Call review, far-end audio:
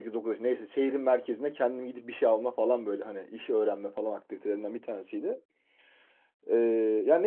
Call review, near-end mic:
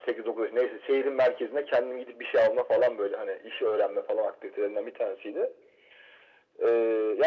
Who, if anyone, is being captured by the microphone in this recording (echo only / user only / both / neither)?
echo only